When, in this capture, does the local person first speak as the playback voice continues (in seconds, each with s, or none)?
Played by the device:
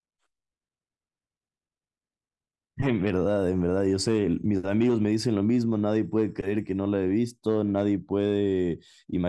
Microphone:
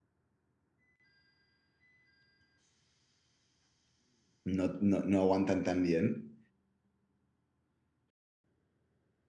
4.4 s